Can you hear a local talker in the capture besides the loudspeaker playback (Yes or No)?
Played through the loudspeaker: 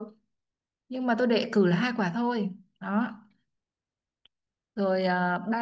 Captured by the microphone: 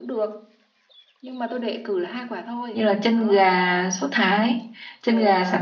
Yes